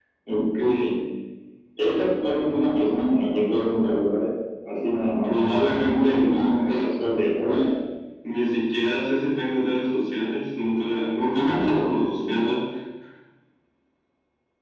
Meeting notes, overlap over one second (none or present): present